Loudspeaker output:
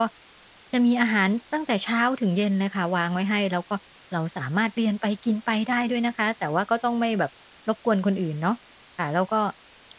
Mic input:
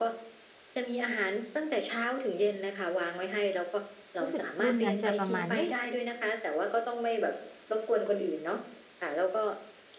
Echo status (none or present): present